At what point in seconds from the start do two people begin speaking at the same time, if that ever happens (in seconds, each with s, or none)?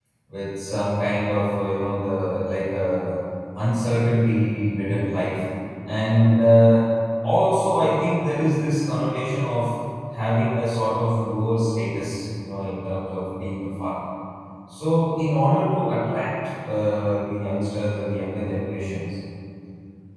none